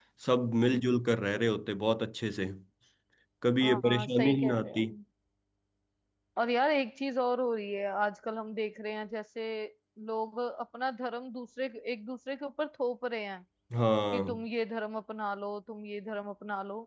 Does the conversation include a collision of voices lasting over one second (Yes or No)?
Yes